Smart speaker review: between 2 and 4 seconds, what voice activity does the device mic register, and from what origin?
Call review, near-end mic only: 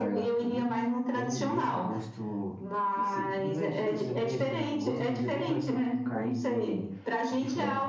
both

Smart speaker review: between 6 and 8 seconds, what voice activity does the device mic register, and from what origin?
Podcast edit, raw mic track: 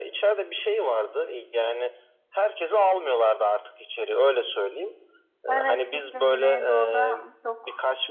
both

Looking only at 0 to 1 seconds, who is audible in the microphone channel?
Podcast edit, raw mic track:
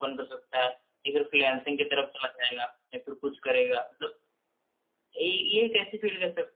echo only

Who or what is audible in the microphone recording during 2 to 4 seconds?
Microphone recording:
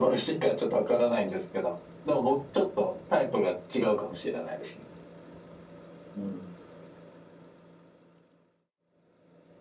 echo only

